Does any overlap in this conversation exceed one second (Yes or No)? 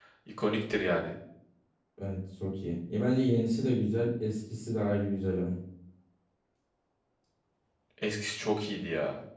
No